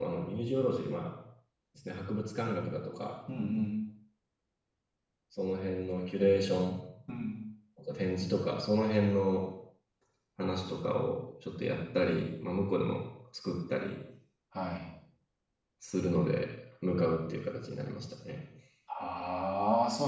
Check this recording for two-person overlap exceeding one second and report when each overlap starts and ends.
none

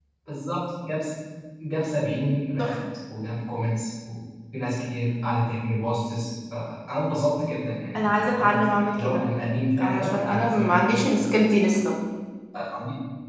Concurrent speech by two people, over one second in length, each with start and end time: 8.0-9.2, 9.8-11.1

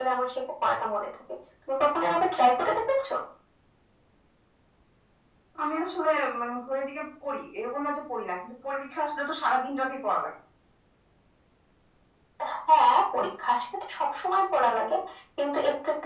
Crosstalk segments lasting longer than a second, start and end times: none

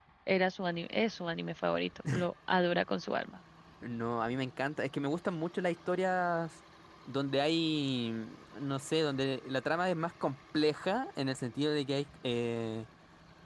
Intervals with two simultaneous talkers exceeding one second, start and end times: none

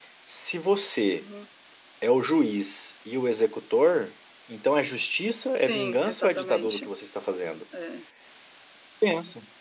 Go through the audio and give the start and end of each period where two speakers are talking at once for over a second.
5.5-6.9

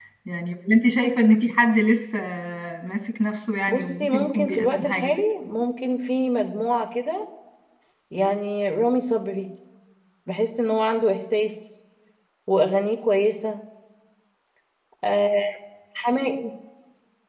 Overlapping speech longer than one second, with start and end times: 3.7-5.1

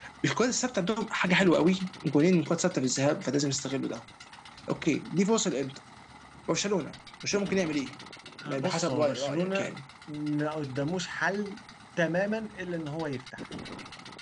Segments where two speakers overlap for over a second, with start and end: 8.5-9.7

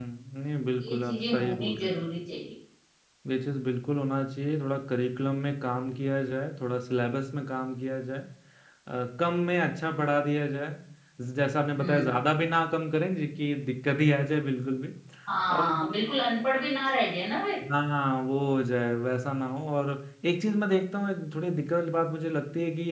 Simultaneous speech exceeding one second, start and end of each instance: 0.8-2.0

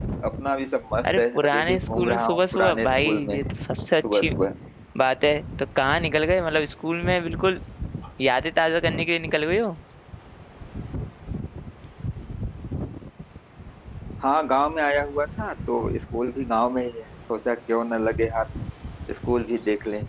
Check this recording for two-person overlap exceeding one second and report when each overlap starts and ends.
1.1-3.4

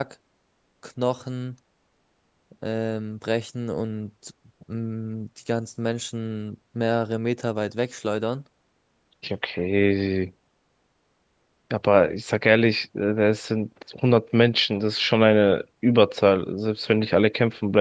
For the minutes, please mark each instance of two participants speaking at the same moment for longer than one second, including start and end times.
none

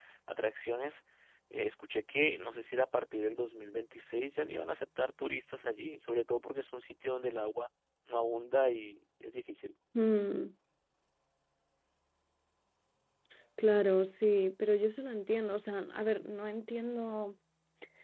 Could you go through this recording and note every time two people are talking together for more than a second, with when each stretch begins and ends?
none

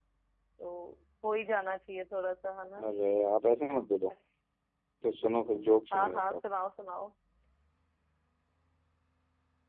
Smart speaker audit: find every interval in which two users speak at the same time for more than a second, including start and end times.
none

